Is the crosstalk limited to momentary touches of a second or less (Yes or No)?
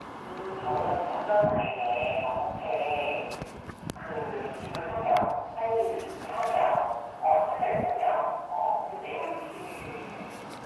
Yes